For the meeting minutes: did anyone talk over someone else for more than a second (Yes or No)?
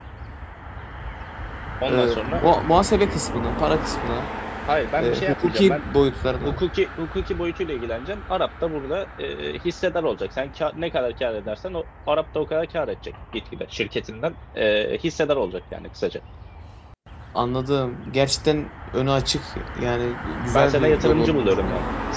Yes